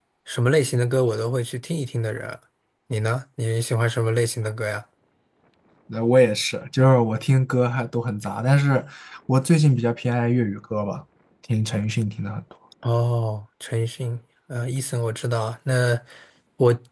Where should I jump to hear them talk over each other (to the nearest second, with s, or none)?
none